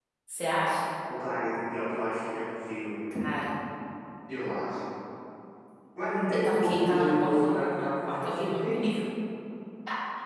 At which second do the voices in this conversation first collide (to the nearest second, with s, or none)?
6 s